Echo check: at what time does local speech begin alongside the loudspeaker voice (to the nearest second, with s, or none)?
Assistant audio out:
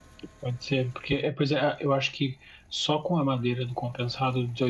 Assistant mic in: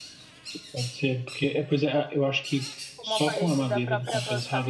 3 s